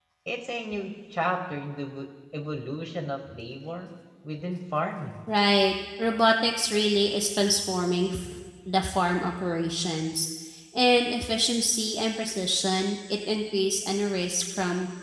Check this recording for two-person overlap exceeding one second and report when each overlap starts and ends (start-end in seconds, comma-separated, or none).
none